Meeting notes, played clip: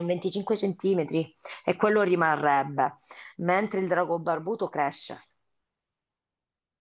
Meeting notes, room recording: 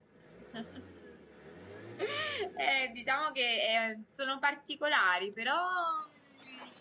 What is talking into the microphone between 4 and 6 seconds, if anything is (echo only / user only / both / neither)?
user only